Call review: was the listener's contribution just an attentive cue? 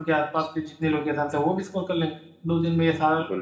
Yes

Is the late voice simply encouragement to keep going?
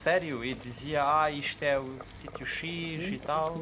No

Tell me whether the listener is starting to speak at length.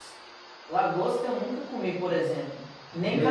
No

